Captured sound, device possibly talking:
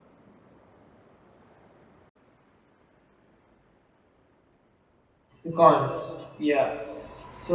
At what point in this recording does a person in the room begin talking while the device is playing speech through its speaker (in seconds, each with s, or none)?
5.4 s